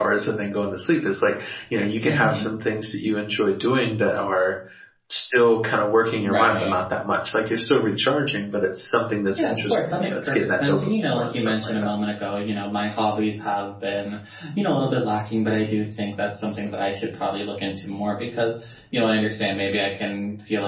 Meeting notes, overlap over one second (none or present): present